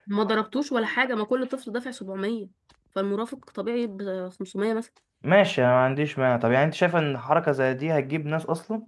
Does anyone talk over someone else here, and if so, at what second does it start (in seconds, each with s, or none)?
none